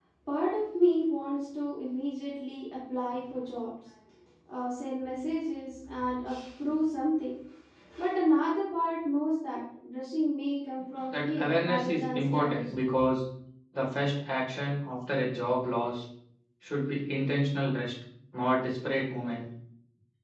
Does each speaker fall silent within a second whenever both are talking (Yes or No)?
No